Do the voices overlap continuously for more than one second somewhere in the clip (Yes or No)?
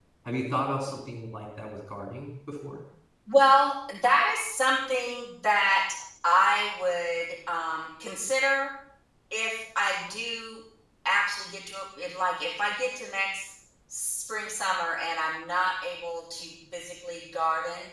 No